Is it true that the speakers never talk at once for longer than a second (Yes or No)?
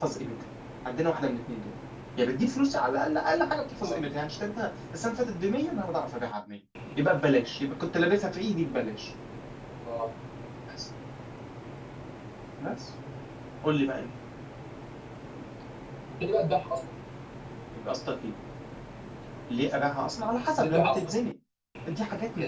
Yes